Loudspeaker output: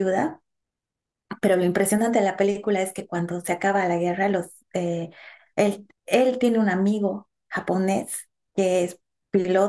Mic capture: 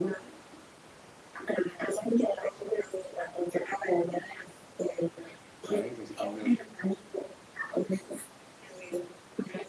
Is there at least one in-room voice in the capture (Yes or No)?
Yes